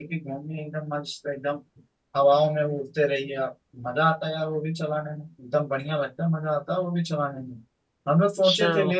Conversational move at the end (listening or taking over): listening